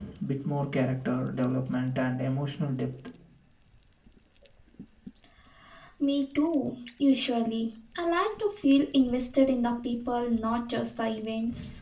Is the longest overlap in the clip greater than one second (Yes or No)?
No